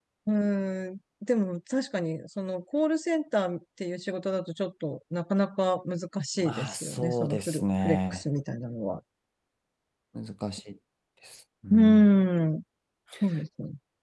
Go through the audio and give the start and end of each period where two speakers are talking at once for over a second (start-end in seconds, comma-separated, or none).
6.4-8.2